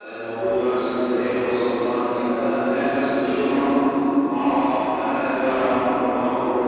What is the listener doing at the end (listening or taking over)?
taking over